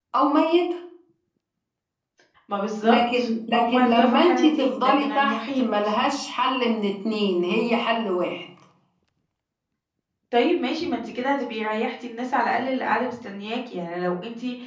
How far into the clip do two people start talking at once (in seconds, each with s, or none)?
2.8 s